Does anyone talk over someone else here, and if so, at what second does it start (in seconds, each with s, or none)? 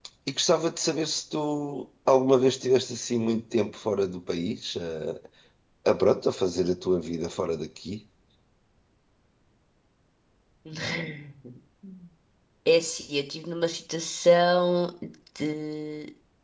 none